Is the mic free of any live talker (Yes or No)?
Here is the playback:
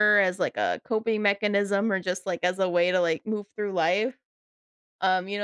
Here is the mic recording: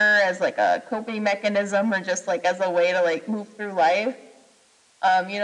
Yes